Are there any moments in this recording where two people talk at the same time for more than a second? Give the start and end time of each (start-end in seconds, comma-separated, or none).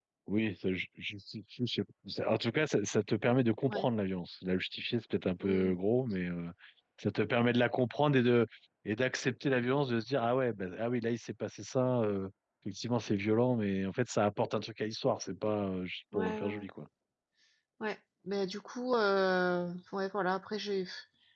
none